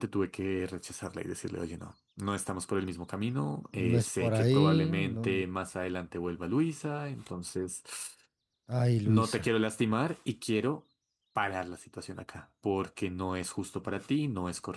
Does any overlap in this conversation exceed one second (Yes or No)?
Yes